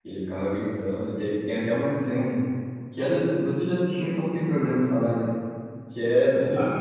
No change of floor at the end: Yes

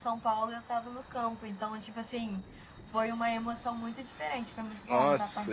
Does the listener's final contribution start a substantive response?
Yes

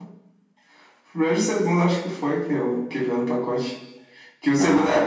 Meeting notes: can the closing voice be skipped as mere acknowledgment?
Yes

